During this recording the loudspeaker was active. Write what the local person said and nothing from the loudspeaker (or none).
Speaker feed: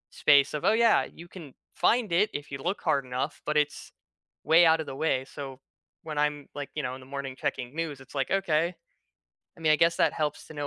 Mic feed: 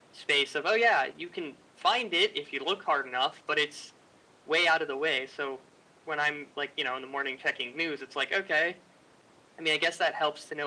none